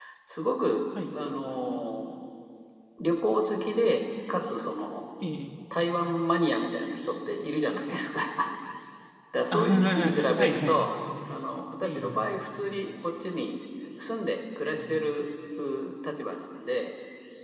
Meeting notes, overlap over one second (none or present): present